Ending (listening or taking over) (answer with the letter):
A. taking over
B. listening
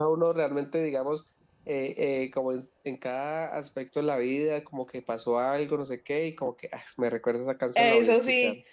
A